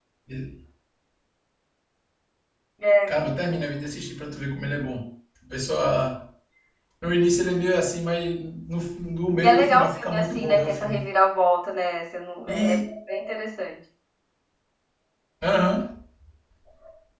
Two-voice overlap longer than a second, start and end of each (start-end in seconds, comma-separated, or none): 9.4-11.1